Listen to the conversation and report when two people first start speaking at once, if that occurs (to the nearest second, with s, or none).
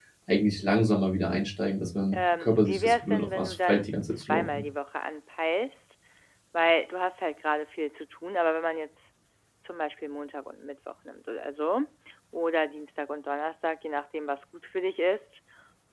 2 s